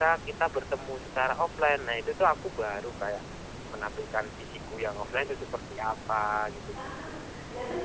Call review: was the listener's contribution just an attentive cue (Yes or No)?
No